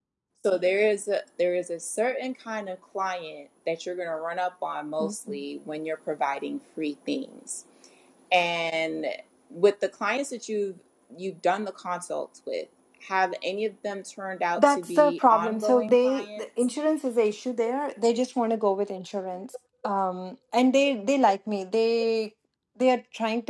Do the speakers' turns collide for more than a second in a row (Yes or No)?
Yes